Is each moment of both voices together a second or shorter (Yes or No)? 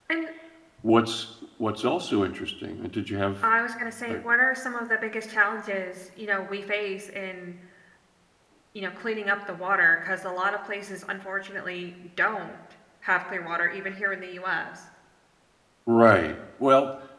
Yes